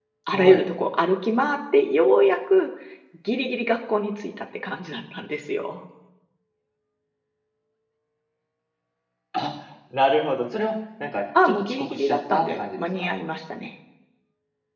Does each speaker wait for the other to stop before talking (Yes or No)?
No